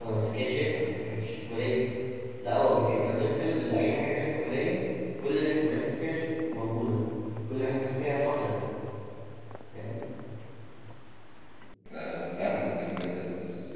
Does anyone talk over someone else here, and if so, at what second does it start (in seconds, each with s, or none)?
none